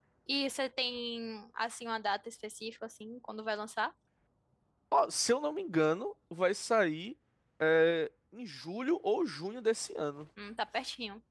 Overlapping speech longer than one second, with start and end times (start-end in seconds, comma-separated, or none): none